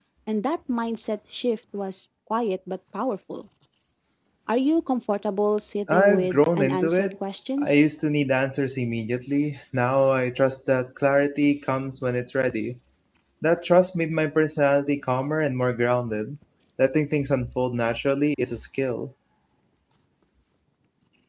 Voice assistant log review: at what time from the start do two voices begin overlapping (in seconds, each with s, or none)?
5.9 s